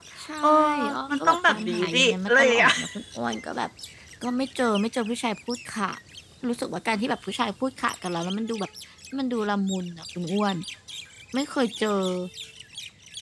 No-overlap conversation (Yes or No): No